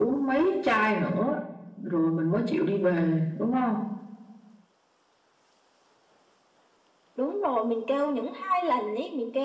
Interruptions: none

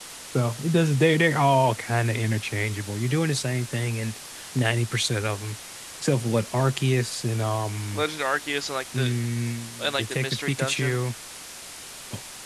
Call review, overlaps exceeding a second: present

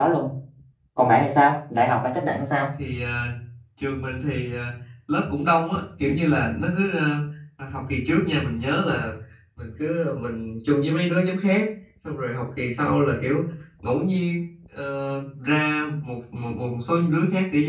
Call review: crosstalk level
none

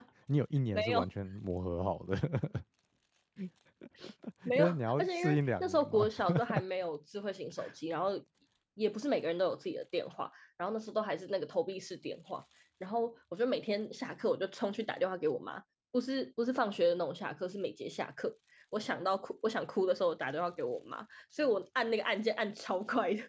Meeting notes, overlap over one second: present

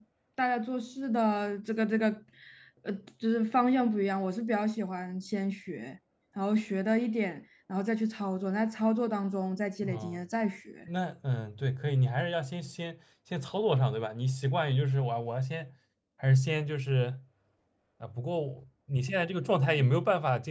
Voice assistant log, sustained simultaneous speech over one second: none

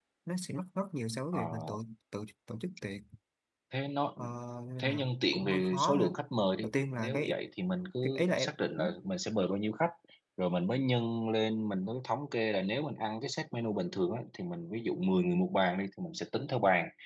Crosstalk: present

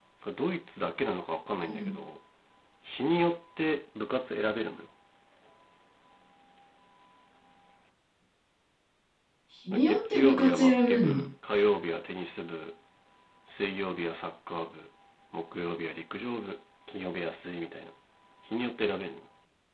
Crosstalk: present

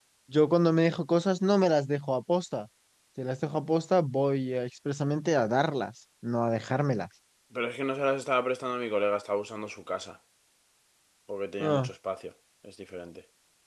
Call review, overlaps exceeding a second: none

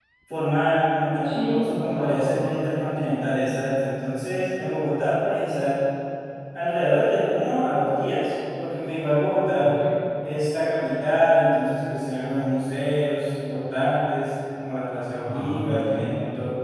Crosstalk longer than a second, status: present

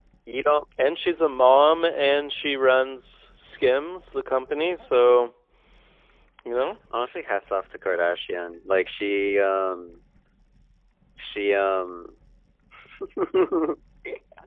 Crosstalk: none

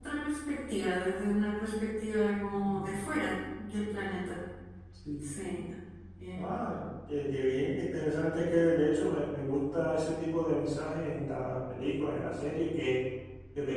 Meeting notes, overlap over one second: none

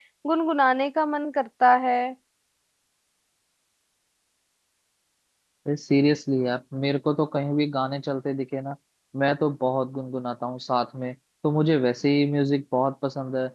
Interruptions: none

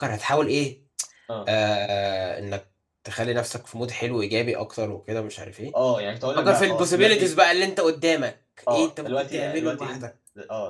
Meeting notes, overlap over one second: present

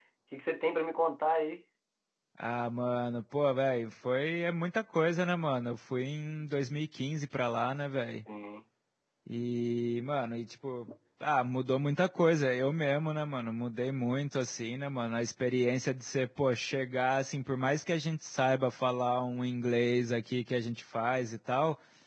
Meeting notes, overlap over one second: none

